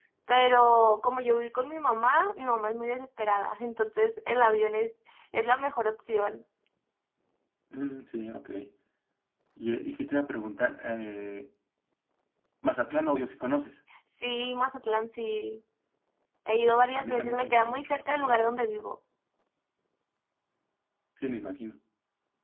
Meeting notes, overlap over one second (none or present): present